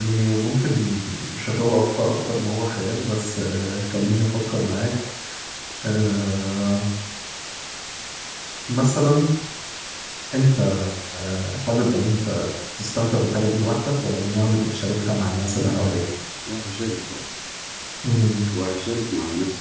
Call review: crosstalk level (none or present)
none